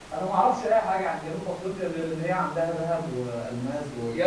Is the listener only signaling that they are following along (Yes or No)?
No